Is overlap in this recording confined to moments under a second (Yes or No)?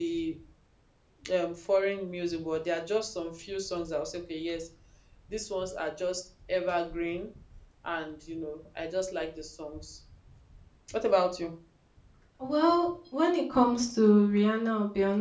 Yes